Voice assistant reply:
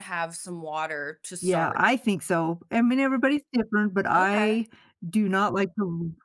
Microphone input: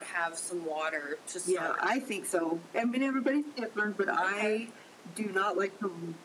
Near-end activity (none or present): none